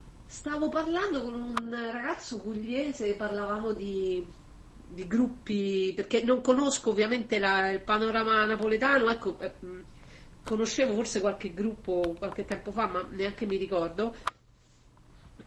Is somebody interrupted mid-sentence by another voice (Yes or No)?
No